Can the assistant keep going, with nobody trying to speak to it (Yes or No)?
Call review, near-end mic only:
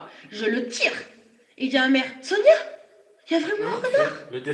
No